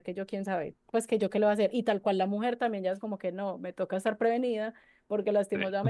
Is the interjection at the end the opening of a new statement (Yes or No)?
No